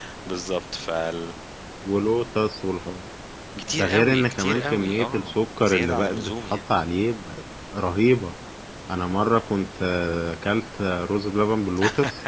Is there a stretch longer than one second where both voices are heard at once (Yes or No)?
Yes